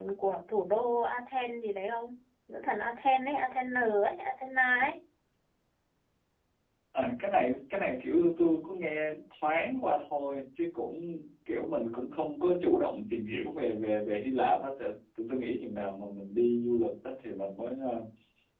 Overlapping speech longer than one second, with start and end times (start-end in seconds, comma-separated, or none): none